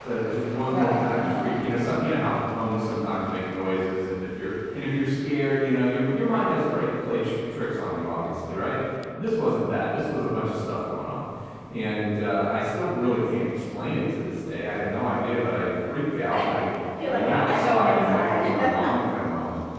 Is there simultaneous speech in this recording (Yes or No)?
Yes